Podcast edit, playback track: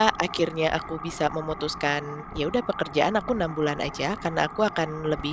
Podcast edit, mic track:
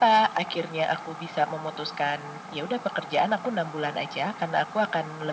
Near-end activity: none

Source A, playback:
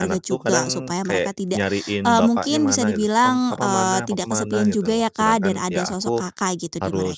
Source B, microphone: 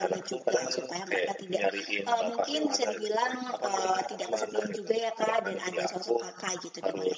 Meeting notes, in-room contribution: none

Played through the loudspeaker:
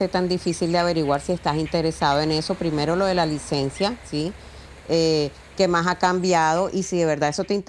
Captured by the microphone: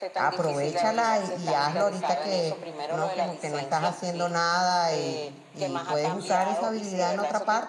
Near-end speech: present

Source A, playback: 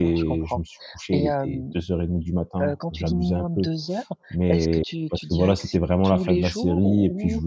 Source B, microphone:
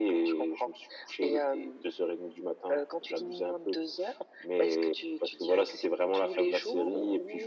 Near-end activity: none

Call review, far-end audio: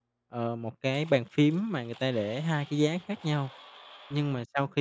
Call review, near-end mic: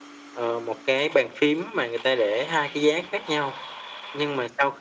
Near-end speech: none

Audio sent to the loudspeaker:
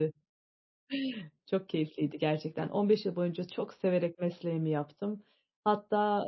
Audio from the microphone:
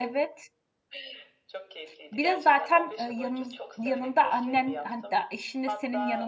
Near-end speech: present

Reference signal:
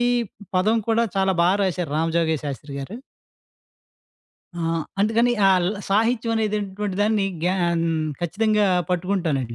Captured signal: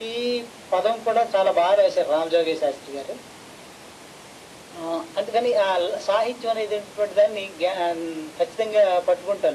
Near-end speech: none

